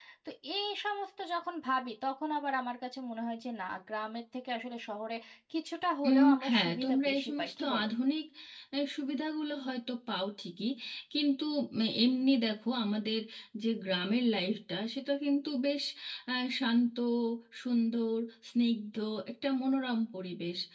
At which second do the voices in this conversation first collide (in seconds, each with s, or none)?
6.1 s